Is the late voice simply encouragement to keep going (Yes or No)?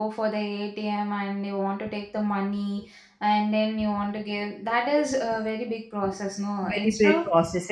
No